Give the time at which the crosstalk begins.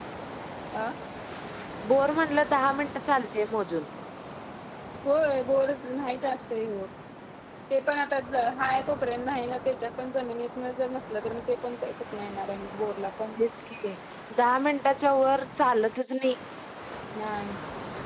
none

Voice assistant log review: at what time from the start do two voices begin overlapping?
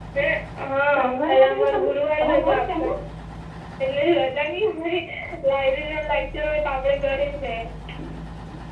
0.9 s

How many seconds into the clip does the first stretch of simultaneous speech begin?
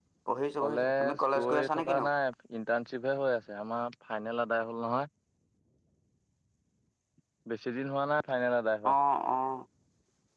0.6 s

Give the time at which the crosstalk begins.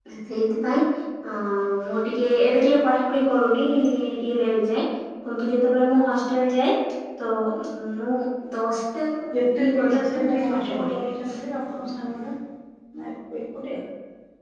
9.3 s

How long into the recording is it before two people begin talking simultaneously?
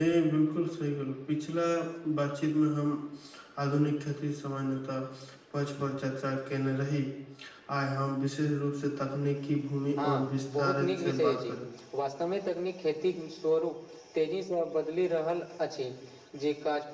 10.0 s

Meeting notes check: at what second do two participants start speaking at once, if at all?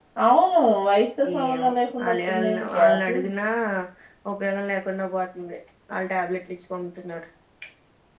1.2 s

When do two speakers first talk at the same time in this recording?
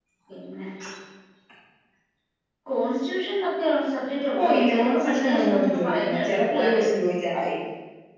4.3 s

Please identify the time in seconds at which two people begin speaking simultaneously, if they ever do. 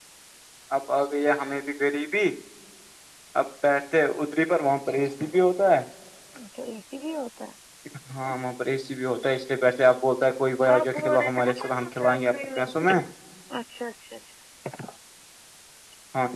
10.7 s

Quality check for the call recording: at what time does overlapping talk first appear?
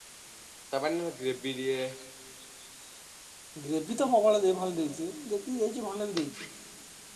none

